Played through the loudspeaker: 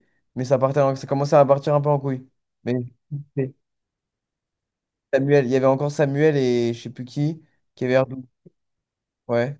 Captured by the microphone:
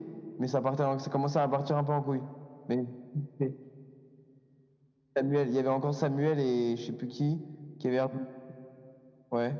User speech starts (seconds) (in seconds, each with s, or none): none